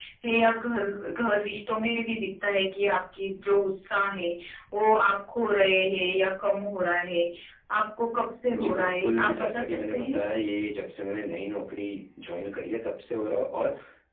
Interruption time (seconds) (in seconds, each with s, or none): 8.6 s